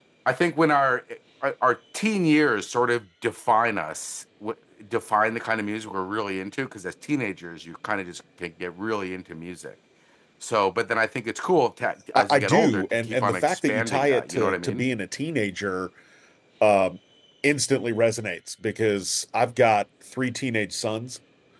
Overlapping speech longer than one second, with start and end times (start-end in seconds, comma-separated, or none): 12.2-14.8